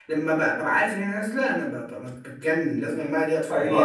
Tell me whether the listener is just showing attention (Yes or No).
No